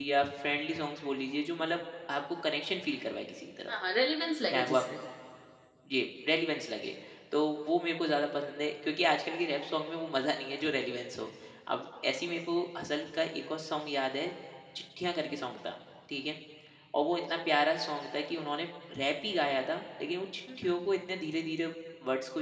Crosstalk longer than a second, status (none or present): none